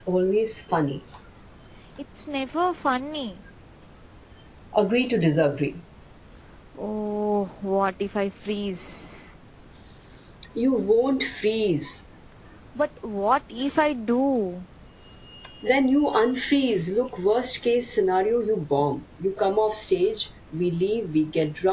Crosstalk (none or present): none